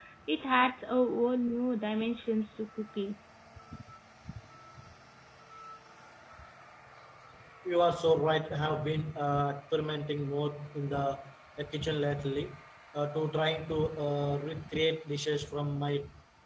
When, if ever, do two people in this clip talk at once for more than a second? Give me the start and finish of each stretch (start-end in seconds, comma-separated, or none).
none